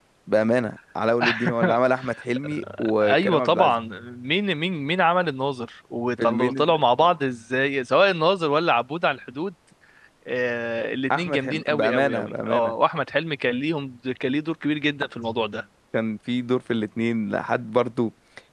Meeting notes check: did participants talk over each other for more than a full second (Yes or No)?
Yes